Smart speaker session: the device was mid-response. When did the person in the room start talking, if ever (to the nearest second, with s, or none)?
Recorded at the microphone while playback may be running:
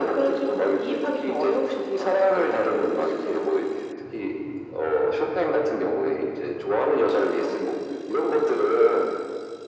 none